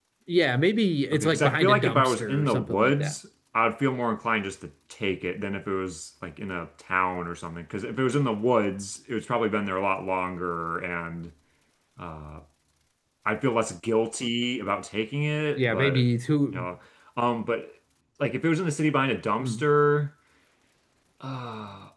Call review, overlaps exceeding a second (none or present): present